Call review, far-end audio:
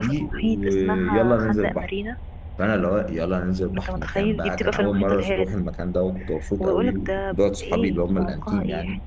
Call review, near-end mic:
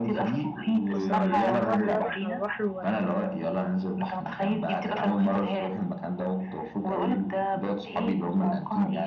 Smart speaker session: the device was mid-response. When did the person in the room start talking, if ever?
0.9 s

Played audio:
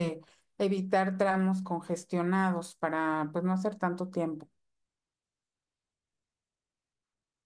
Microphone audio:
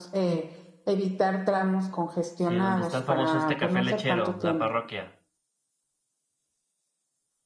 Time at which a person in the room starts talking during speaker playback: 2.4 s

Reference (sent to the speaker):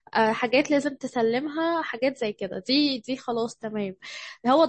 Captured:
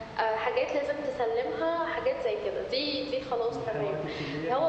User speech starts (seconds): 3.5 s

